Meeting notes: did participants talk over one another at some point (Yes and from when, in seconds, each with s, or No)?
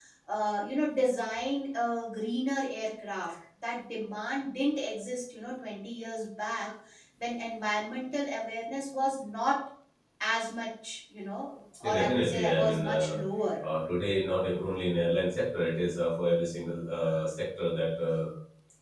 Yes, from 11.8 s